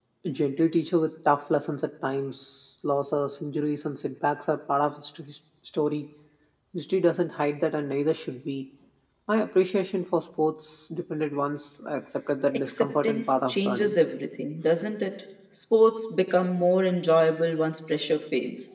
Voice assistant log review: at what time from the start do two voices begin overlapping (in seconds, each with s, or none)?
12.7 s